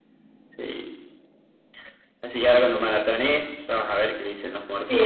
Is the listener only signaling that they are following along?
No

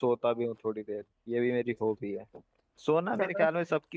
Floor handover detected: No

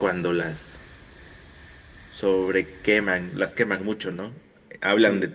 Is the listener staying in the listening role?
Yes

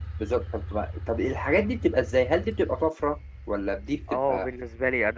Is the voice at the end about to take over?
Yes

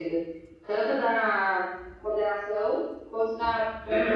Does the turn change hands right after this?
Yes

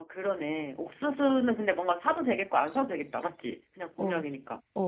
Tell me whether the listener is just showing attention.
No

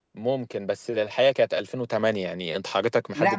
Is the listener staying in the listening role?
No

